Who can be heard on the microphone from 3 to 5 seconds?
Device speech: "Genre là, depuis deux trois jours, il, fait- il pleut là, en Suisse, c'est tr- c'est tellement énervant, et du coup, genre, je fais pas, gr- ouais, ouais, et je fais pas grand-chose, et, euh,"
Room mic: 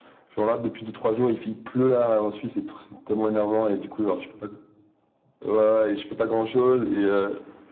echo only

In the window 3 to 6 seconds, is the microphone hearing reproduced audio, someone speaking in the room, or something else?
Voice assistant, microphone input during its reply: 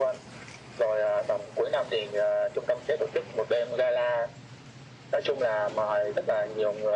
echo only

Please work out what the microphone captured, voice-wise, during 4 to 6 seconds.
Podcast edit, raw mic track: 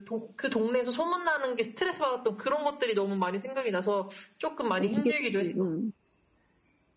both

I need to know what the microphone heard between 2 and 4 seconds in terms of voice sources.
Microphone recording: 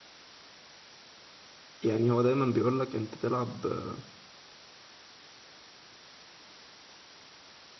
user only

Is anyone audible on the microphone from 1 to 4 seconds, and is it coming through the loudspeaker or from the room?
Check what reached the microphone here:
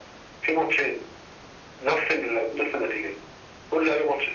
echo only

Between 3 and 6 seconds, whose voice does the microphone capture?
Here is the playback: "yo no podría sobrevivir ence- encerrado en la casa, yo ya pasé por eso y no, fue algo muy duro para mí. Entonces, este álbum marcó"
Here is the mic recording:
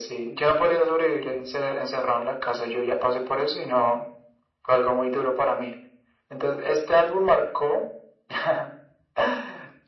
echo only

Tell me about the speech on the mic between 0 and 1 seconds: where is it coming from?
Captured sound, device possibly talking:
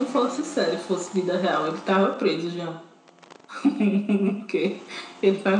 echo only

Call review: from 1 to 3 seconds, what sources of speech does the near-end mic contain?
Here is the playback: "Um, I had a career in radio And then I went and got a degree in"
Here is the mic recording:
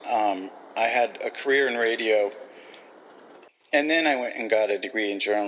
echo only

